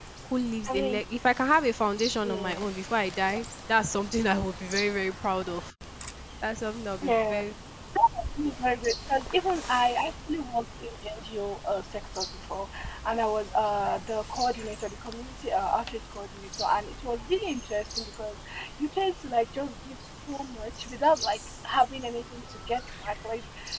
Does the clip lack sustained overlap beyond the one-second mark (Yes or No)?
Yes